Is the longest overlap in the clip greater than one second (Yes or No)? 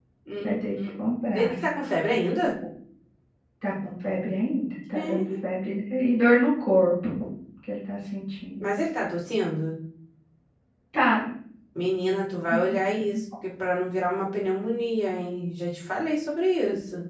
No